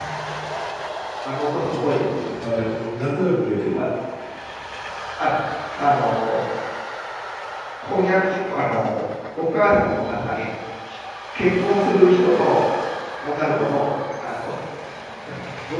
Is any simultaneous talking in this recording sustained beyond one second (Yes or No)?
No